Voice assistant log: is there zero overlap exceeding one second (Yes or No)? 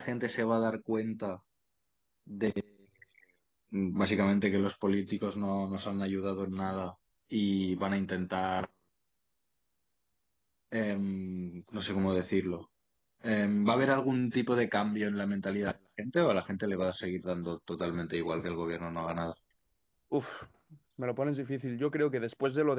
Yes